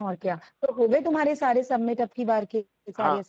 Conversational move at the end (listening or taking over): taking over